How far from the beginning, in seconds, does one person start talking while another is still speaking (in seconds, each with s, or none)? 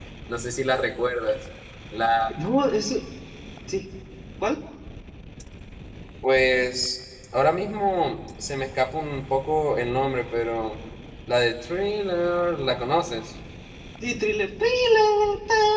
none